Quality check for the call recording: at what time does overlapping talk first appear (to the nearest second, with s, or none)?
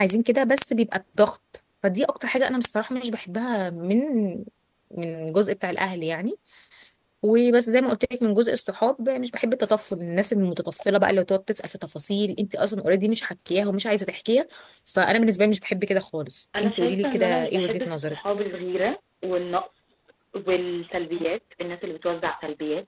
17 s